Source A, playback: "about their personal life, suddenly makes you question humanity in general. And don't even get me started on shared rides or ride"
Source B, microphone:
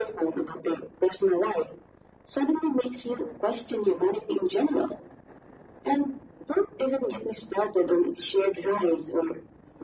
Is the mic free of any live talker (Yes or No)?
Yes